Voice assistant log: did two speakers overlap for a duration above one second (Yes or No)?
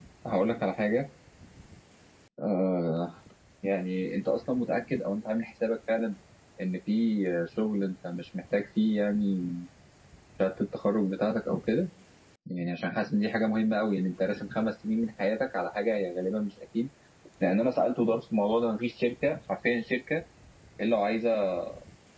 No